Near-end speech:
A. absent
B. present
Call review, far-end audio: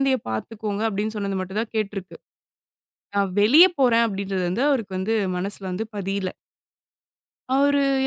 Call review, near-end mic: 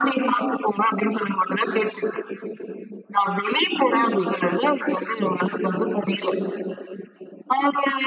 B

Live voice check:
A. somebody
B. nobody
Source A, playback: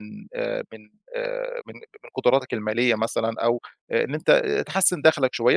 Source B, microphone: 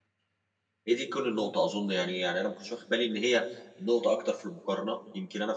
A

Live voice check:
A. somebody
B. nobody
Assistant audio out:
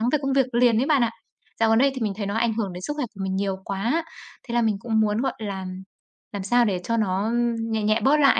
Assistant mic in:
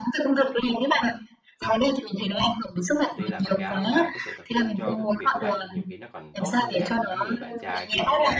A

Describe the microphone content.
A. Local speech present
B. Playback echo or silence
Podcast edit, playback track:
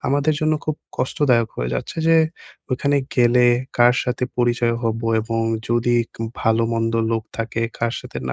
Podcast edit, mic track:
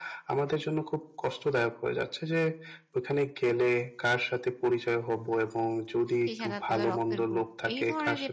A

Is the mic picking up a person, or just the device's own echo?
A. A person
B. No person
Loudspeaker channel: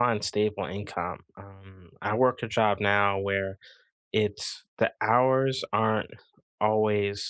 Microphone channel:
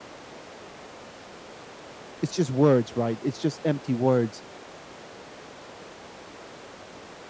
A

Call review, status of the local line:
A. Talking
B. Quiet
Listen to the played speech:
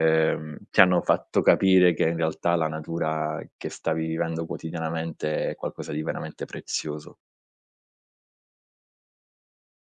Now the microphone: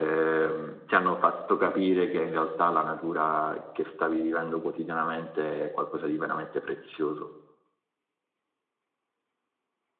B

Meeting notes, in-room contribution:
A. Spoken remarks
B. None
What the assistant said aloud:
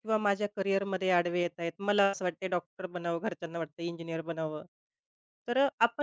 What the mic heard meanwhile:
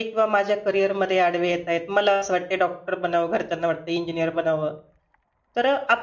B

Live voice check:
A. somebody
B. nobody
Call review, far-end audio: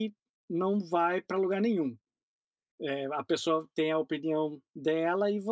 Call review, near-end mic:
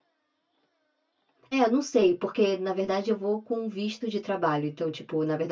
A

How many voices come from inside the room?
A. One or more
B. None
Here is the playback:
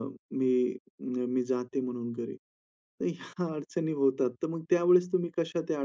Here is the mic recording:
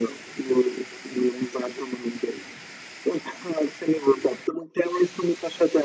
B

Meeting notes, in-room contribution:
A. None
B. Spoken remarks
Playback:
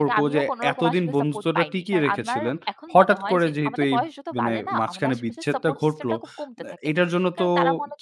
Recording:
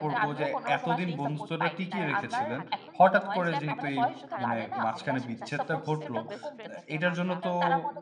B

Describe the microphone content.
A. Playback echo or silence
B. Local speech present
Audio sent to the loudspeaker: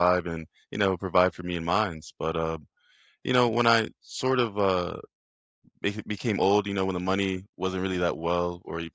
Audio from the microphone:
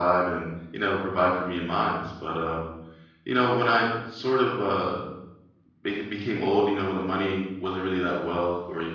A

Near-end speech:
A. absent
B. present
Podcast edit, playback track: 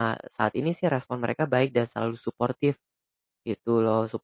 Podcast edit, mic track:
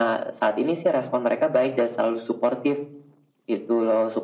A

